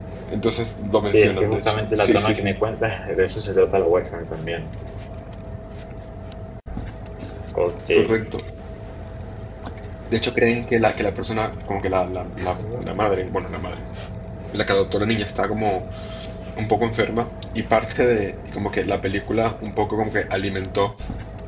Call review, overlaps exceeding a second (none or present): present